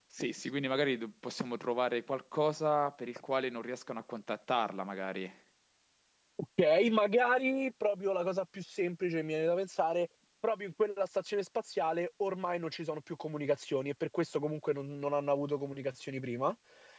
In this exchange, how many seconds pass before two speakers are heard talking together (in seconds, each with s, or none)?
none